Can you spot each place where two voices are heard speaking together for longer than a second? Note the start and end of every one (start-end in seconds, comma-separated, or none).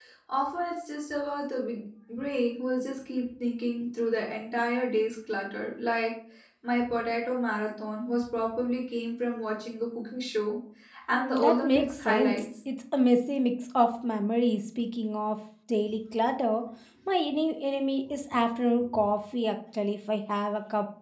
11.1-12.4